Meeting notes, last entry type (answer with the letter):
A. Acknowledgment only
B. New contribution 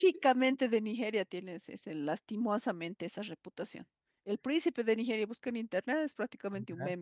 A